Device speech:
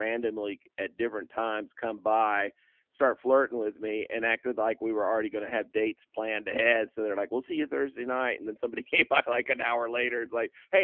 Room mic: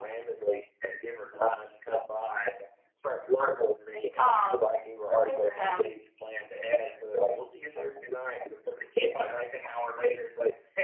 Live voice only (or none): Oh, good for him.